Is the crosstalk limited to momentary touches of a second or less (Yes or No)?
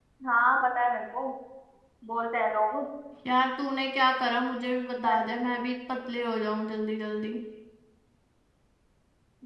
Yes